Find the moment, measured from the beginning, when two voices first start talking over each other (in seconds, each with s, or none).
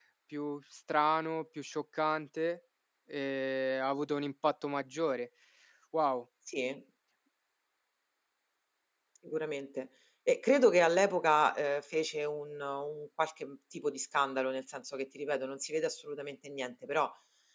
none